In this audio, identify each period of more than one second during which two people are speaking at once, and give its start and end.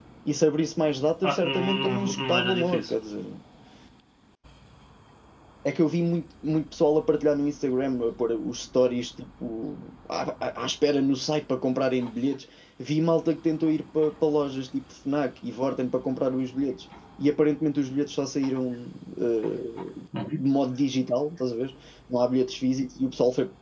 1.2-2.8

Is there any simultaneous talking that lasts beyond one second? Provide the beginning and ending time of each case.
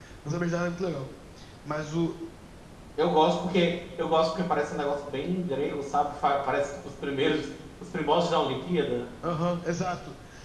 none

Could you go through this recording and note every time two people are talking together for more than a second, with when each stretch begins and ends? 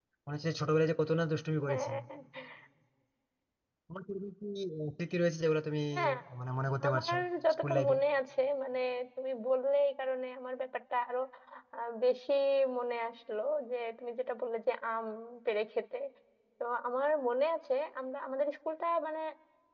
none

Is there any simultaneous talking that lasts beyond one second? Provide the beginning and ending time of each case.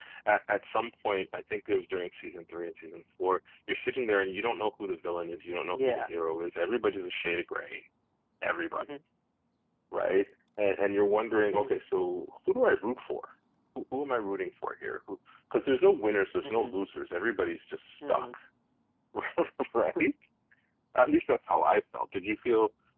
none

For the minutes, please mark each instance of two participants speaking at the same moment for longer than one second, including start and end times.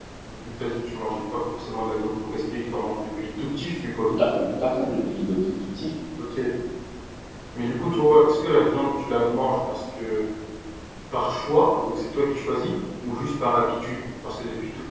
none

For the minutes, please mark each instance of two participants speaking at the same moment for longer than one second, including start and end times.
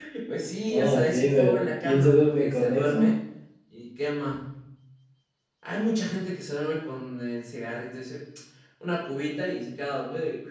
0.7-3.1

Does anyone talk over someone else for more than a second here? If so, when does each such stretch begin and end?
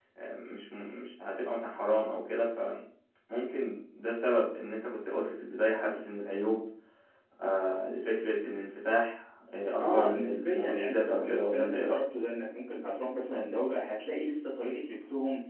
9.8-12.0

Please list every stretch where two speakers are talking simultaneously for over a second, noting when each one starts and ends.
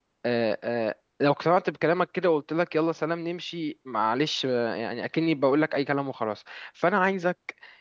none

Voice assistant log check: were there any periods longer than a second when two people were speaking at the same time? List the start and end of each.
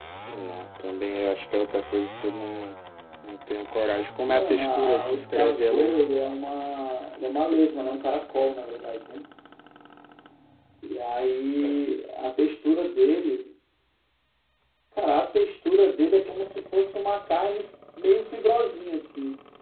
4.2-6.0

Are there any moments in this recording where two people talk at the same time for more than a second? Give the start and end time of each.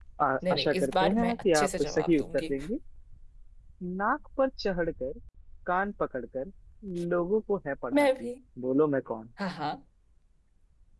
0.5-2.5

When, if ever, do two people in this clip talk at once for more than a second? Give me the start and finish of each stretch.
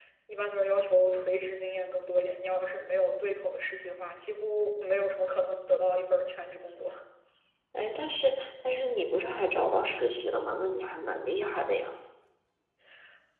none

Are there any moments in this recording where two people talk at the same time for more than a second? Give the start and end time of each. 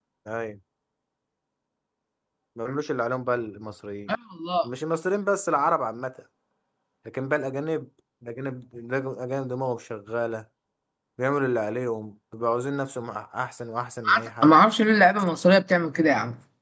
none

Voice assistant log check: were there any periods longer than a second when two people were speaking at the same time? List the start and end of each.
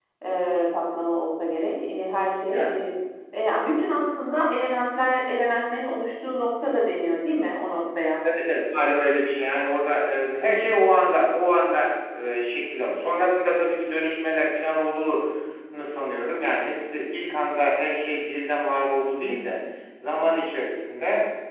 none

